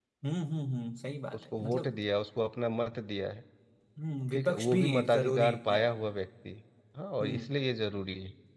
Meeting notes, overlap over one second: present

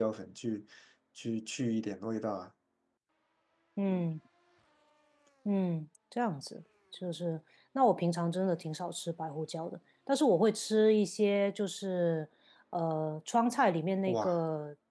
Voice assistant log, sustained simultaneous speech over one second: none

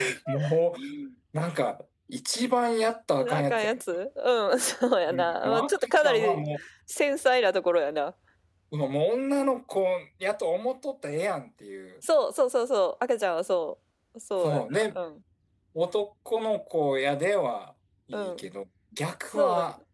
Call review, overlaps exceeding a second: present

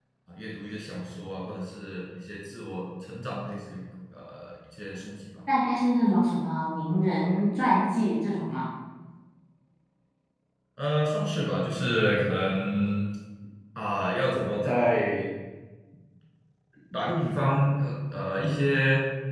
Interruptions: none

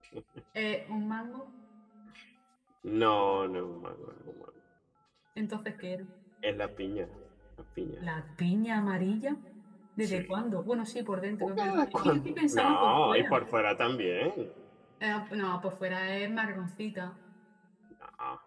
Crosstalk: present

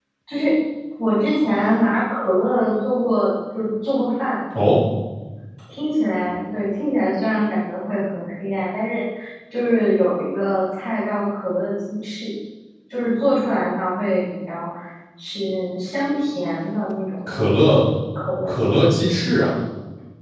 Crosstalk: none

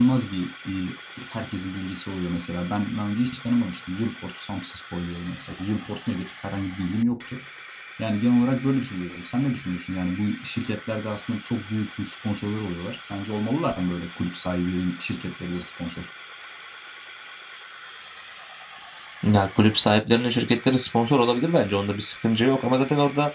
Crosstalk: none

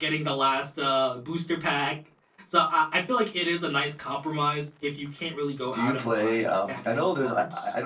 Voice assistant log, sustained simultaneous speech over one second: present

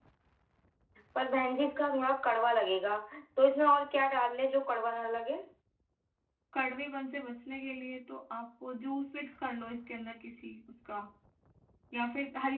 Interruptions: none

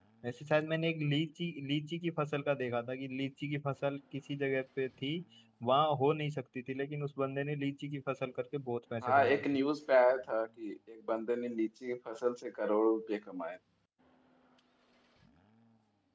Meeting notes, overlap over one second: none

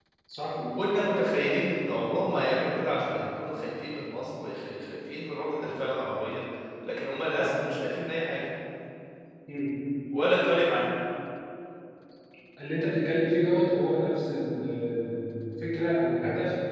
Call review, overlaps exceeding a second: none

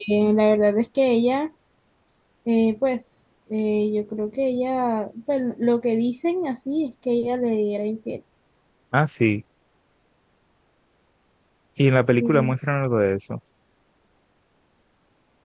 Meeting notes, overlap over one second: none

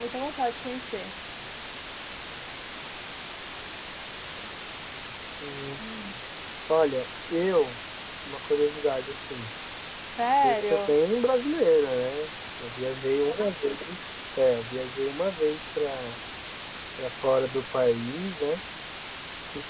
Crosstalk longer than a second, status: none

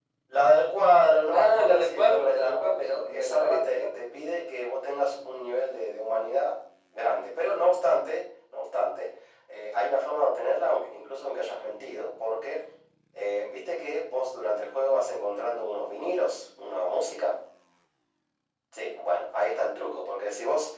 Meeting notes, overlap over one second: present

